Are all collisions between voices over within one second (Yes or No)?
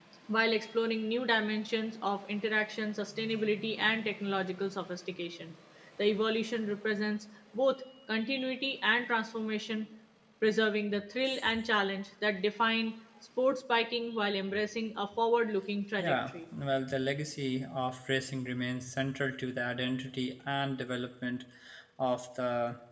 Yes